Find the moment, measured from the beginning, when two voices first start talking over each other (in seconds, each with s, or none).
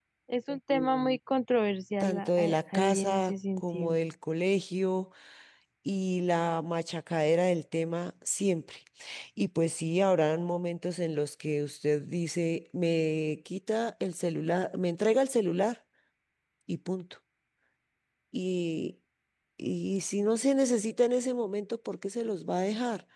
2.0 s